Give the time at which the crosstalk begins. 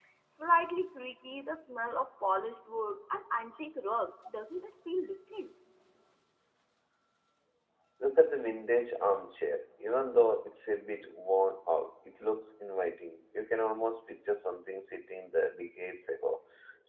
none

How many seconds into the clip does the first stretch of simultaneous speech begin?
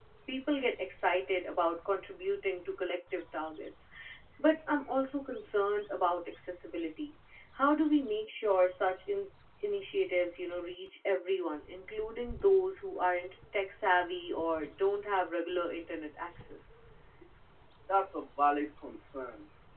none

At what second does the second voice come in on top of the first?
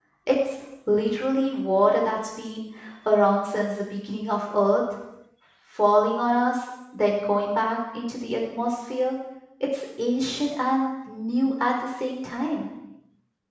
none

